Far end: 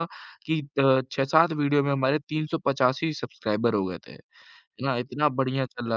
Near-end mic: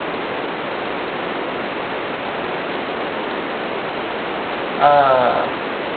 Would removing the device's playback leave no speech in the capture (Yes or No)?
No